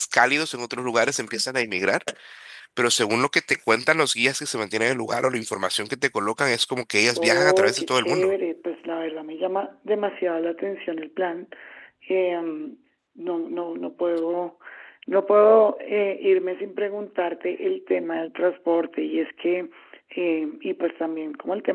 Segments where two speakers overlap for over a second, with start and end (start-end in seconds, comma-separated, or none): 7.1-8.3